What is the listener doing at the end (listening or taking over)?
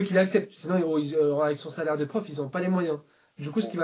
listening